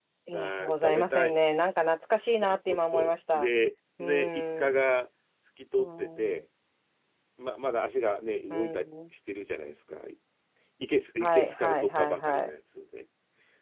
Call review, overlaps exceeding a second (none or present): present